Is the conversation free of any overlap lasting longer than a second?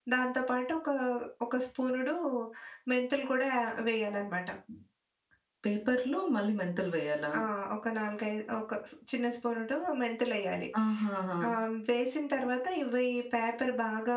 Yes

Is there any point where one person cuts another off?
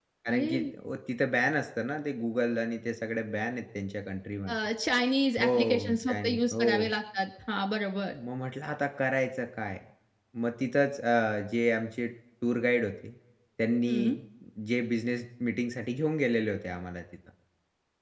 Yes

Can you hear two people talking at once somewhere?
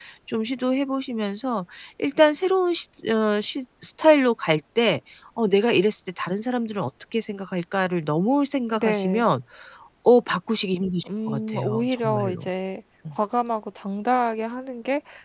Yes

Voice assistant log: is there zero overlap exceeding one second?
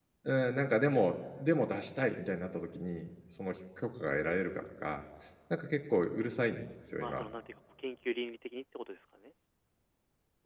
Yes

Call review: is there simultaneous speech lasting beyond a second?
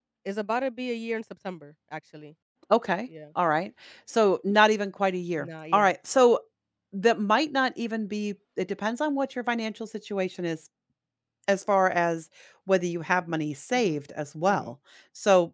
No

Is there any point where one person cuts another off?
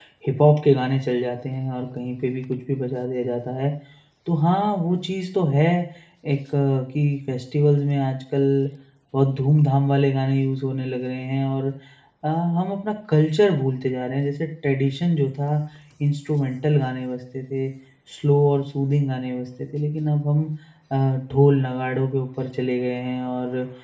No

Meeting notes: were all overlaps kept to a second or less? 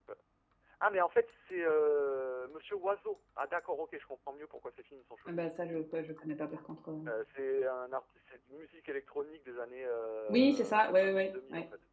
No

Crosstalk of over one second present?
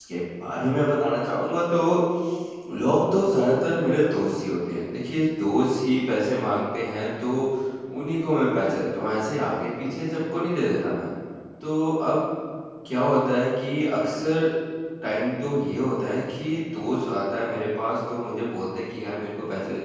No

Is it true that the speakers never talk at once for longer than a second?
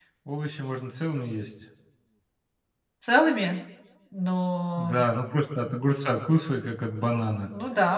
Yes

